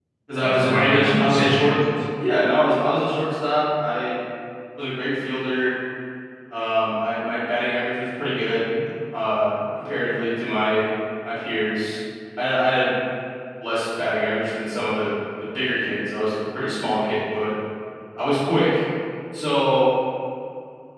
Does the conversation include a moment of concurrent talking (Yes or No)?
Yes